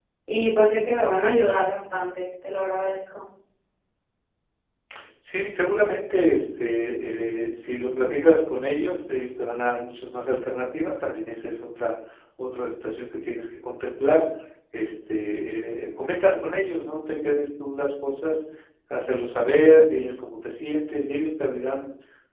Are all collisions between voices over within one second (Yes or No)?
Yes